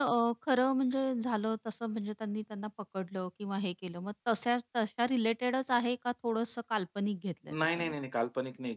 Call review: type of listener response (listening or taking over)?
taking over